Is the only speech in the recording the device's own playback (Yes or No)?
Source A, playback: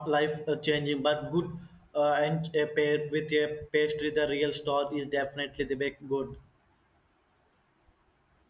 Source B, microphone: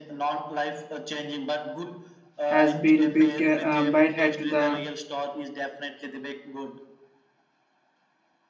No